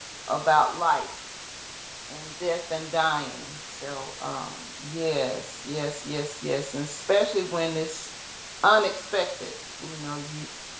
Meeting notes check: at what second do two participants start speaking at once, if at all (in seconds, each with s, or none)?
none